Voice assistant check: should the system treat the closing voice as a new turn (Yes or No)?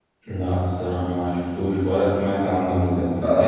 Yes